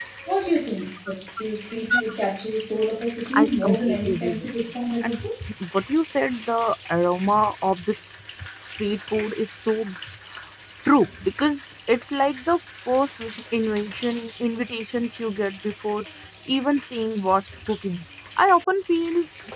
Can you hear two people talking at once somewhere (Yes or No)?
Yes